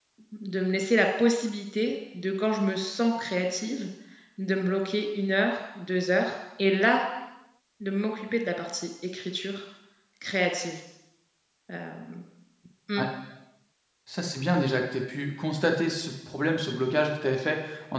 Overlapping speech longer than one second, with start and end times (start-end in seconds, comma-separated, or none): none